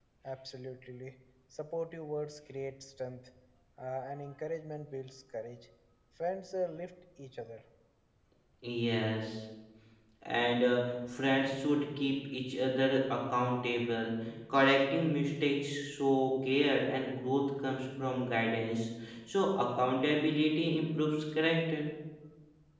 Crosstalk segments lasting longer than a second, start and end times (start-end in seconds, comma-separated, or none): none